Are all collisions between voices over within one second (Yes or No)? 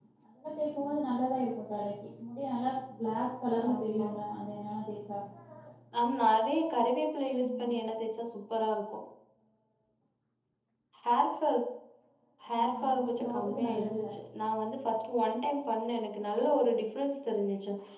No